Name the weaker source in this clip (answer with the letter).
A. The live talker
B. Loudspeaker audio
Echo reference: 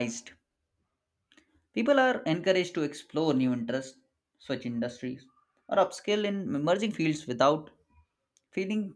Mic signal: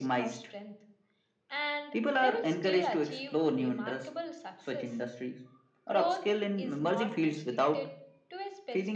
A